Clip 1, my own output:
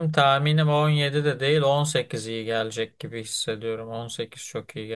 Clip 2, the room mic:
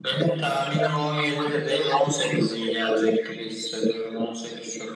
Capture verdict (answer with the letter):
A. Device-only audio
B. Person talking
A